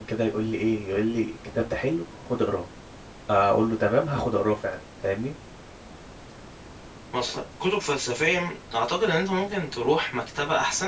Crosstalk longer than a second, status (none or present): none